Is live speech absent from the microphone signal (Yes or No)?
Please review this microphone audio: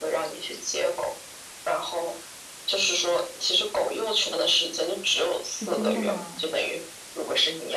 No